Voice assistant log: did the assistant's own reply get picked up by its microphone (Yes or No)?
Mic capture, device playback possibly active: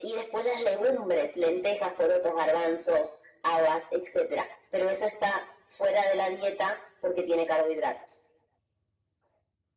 Yes